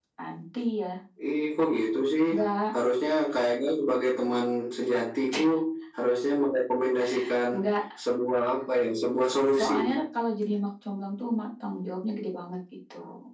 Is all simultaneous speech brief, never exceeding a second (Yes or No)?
Yes